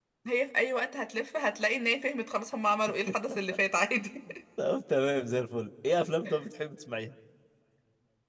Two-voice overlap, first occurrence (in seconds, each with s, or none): none